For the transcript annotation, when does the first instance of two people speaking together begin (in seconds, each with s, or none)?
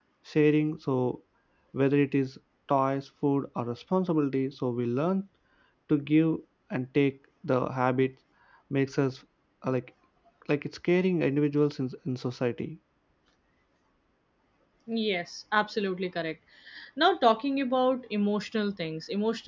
none